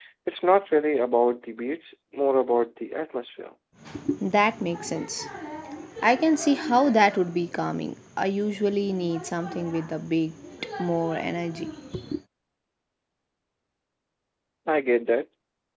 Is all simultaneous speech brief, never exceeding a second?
Yes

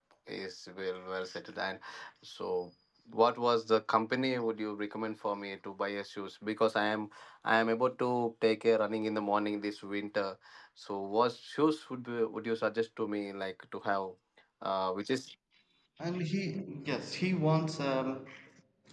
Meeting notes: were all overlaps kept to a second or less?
Yes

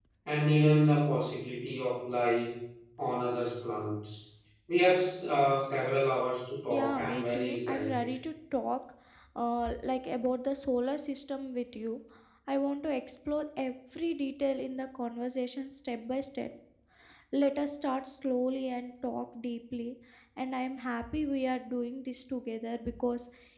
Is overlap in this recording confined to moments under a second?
No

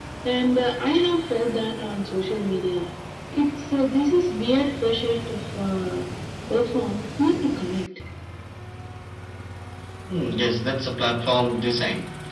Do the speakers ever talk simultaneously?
No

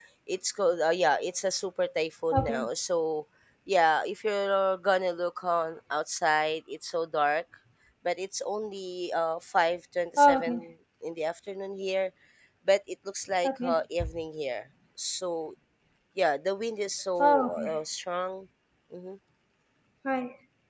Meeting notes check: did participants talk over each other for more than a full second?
No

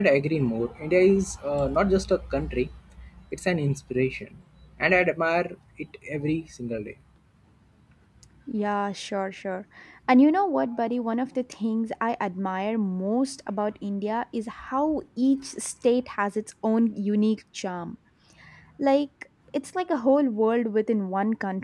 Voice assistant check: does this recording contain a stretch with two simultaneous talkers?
No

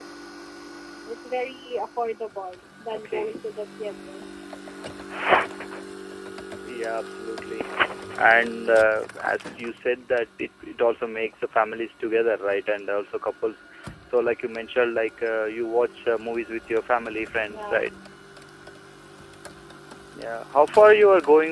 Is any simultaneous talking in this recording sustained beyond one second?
No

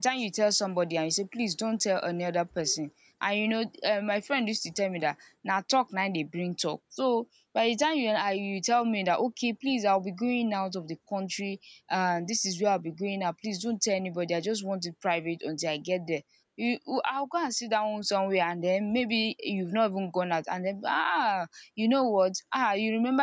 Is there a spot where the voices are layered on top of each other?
No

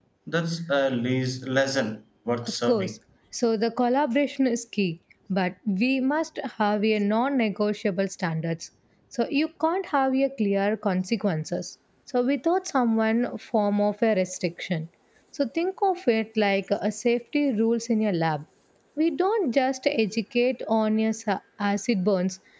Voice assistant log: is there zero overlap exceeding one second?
Yes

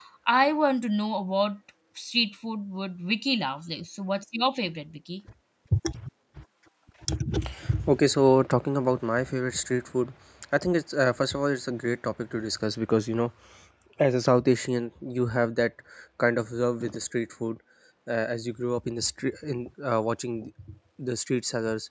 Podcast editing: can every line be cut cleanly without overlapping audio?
Yes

